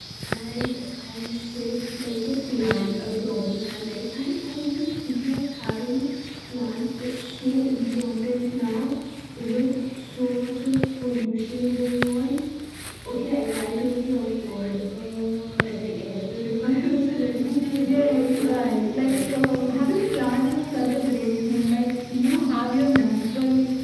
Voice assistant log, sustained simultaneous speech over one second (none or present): present